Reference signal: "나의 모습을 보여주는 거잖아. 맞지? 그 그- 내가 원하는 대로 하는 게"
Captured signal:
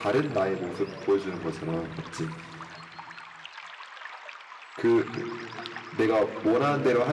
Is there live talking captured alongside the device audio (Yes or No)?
No